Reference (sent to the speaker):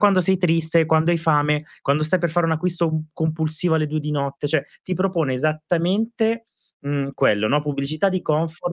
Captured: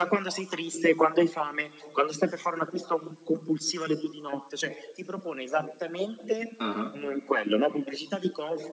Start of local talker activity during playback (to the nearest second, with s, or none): 7 s